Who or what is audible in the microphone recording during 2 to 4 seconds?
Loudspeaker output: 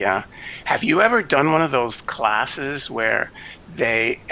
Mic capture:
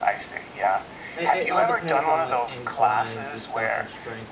both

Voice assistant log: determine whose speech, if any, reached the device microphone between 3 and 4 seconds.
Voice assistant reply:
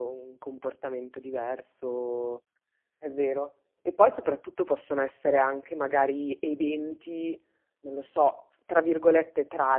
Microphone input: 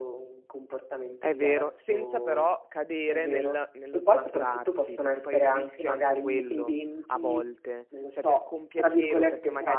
both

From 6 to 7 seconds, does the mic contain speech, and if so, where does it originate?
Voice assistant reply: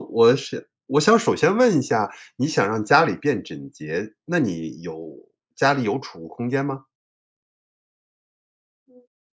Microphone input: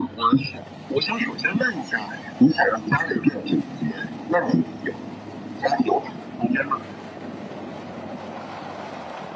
echo only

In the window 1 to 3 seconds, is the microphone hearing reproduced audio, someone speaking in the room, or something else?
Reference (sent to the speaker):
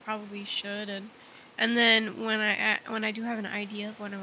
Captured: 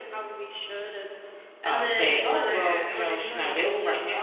both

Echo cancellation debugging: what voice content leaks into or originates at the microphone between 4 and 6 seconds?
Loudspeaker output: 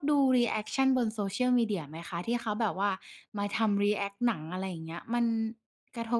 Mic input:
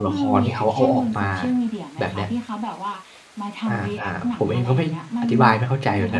both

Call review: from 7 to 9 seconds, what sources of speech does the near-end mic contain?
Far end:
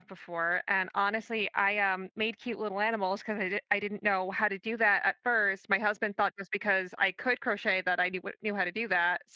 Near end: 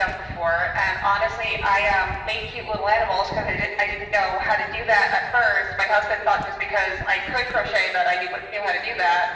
echo only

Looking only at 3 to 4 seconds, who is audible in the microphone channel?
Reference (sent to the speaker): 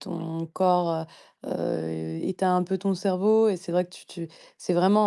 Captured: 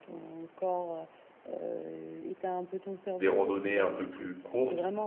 both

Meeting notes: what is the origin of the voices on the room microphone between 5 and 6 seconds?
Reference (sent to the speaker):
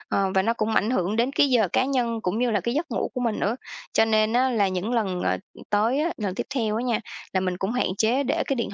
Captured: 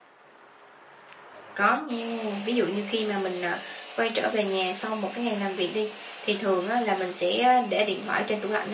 user only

